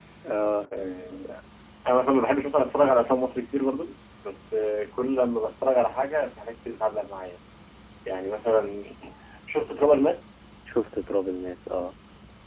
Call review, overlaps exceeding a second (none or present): none